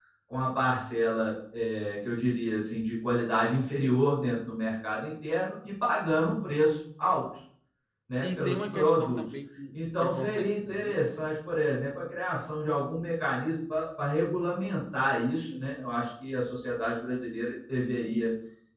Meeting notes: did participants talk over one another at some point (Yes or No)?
Yes